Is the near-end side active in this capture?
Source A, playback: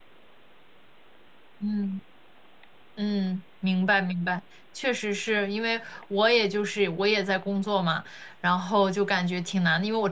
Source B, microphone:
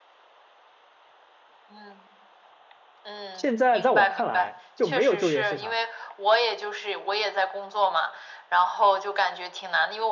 Yes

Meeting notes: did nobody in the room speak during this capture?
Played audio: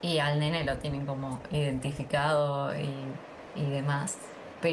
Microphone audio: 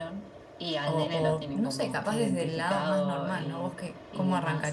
No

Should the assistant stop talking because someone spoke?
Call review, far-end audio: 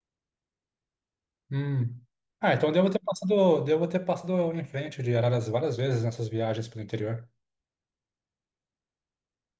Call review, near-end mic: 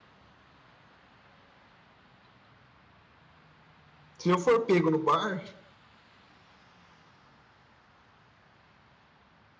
Yes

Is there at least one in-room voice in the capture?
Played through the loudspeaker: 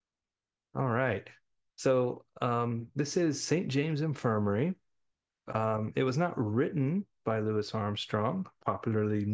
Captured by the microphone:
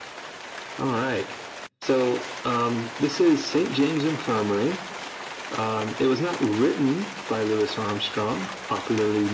No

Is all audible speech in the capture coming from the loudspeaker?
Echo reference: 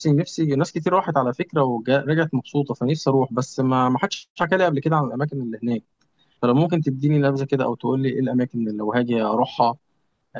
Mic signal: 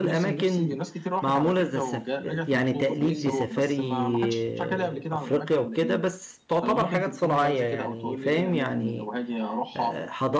No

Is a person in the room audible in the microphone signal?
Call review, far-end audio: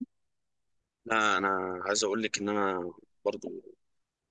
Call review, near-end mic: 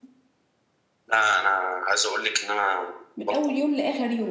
Yes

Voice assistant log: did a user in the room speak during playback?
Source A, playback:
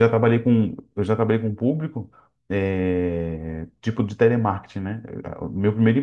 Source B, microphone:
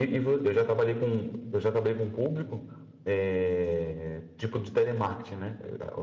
No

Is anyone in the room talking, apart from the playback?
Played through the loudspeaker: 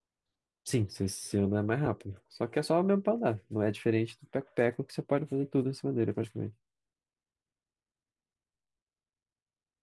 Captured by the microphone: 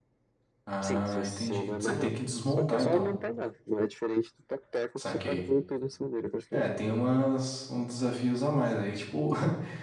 Yes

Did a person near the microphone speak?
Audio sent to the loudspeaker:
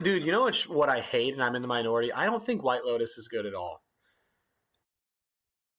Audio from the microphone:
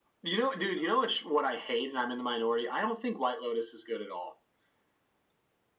No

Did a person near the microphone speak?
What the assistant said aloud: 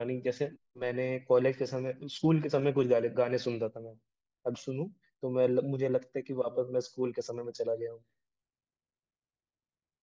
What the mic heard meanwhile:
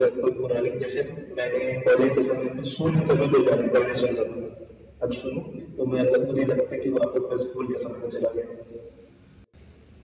No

